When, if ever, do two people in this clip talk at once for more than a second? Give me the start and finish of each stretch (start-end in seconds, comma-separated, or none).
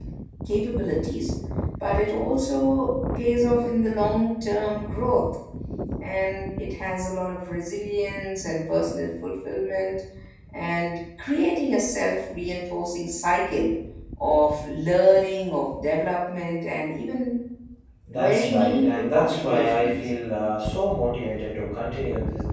18.1-20.1